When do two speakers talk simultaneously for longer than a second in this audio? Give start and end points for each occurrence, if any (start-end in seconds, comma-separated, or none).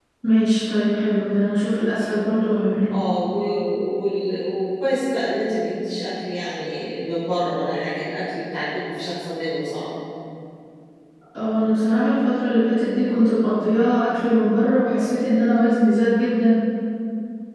none